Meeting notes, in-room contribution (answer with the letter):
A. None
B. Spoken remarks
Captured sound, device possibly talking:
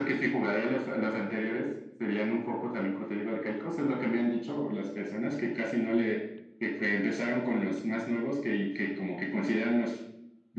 A